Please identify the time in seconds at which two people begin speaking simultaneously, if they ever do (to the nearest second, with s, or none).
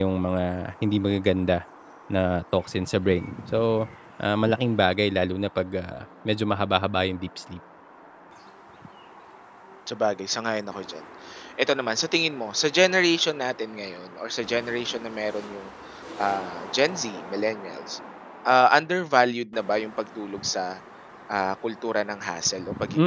none